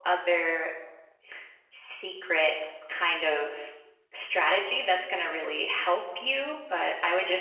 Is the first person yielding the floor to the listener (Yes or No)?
No